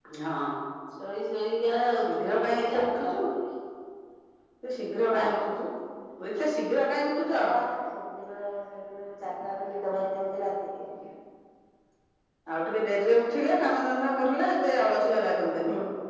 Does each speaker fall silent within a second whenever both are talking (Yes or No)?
No